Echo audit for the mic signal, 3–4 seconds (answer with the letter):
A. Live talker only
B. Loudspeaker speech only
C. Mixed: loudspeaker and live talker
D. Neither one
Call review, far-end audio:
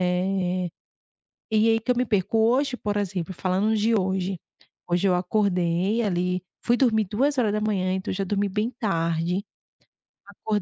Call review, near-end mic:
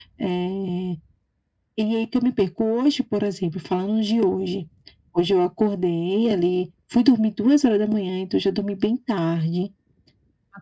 B